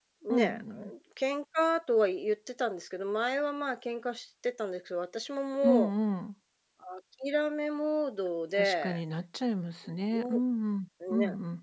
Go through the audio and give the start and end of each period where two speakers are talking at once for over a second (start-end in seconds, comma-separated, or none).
none